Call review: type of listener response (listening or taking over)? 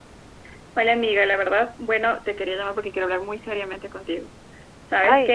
listening